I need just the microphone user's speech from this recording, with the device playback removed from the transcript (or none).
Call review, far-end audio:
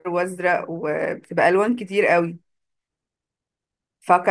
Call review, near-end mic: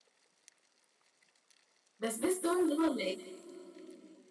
ده سبيستون ده ولا ايه